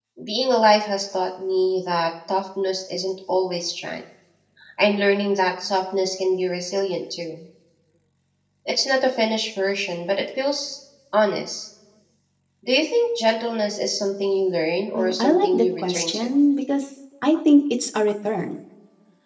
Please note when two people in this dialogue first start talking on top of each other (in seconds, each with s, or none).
14.9 s